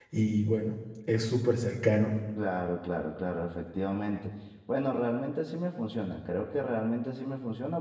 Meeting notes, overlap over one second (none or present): none